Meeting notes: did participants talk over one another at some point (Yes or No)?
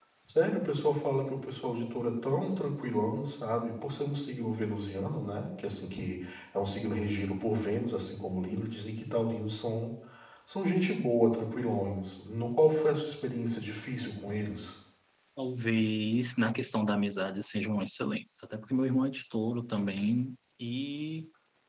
No